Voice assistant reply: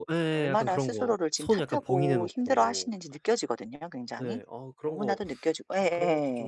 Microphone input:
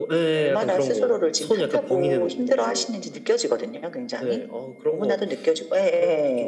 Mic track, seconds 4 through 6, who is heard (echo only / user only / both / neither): echo only